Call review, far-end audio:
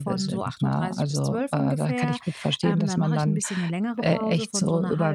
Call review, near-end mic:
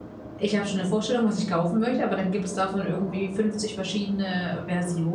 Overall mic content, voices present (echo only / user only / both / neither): user only